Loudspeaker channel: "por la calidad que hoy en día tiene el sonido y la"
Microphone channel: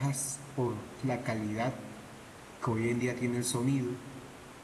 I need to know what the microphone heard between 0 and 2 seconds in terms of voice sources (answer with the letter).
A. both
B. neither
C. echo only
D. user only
C